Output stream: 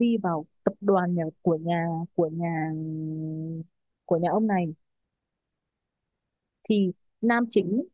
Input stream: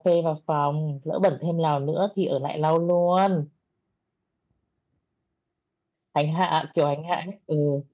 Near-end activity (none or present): present